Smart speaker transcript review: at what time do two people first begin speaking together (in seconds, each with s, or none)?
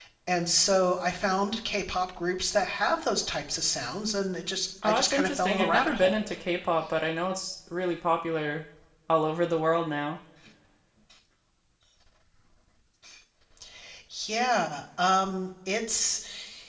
4.8 s